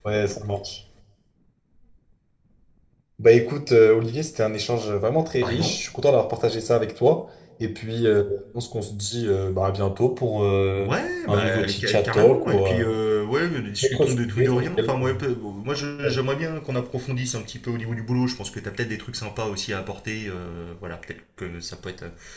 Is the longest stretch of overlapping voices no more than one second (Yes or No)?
No